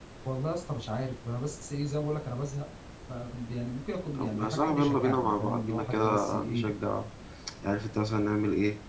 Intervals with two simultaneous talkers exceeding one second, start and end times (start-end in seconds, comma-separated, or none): 4.2-6.7